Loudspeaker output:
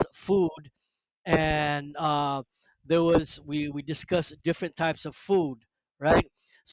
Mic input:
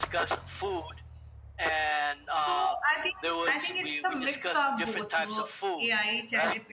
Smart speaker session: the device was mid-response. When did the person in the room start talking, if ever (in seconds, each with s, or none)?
2.3 s